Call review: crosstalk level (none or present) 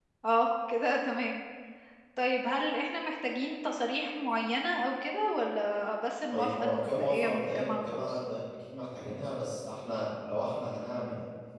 present